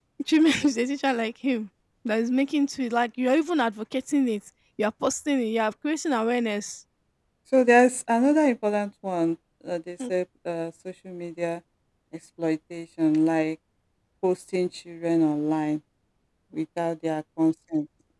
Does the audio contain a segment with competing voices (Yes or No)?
No